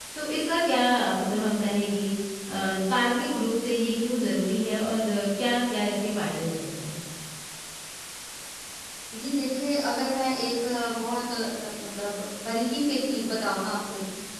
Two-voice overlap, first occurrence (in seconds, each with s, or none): none